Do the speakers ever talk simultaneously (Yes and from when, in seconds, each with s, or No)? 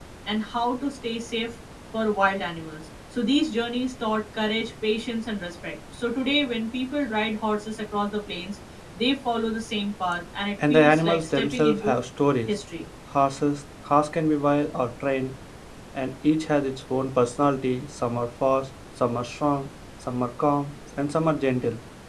Yes, from 10.6 s